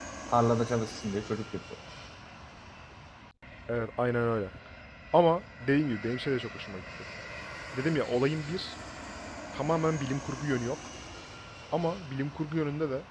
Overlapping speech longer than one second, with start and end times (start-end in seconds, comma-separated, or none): none